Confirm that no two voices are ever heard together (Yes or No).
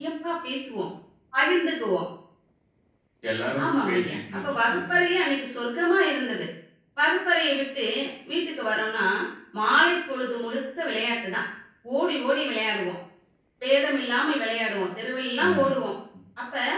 No